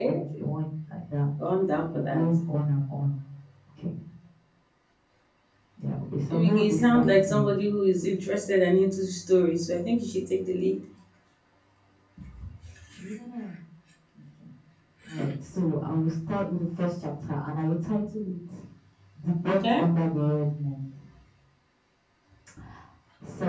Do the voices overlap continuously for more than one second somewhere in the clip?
Yes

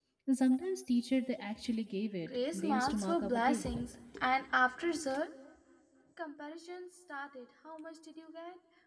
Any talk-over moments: Yes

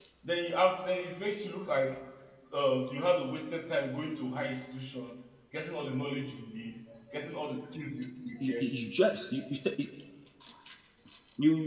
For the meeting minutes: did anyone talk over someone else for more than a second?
No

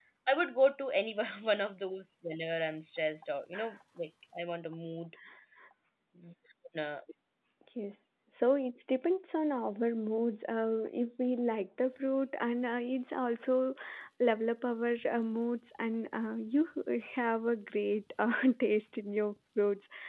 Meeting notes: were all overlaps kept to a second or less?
Yes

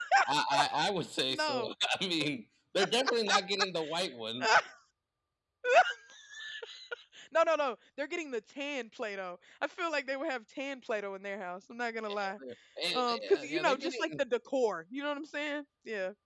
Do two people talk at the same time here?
Yes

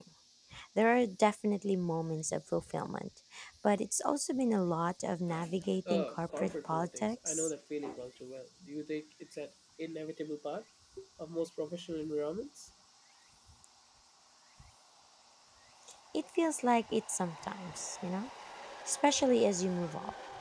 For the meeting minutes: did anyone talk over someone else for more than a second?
Yes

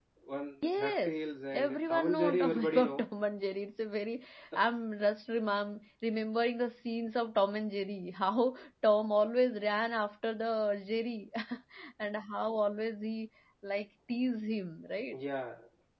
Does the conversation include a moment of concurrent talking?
Yes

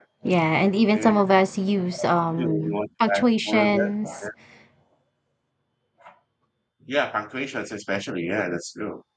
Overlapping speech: Yes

